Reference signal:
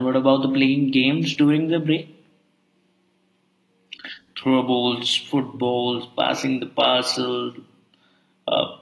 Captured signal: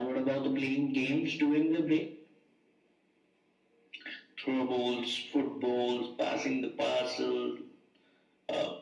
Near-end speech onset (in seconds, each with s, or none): none